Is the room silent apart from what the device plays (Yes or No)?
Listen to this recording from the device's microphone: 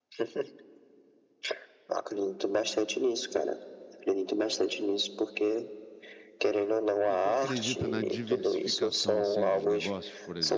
No